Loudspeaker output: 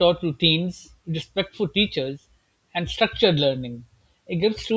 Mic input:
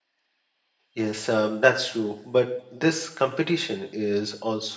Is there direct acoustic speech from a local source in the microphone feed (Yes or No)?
Yes